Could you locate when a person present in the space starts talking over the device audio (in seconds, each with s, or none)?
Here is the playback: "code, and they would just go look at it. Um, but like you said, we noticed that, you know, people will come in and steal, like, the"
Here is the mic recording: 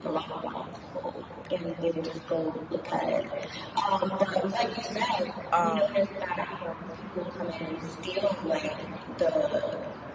5.5 s